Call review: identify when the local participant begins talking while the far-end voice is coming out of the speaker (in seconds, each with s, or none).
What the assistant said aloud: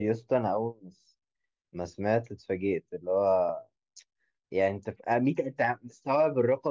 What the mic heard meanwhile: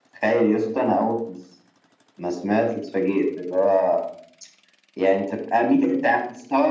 none